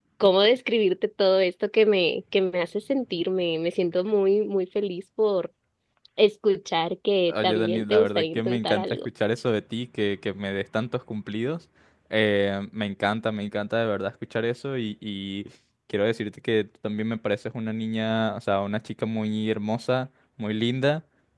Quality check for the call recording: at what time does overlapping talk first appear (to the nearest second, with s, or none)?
7 s